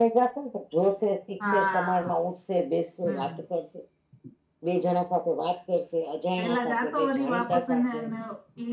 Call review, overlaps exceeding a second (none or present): present